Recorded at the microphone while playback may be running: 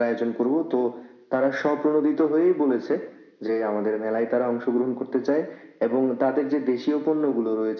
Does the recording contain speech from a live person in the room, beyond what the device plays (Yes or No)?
No